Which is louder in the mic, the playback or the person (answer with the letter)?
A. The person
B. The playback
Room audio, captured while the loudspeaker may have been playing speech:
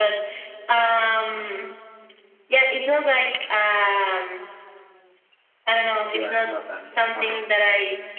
B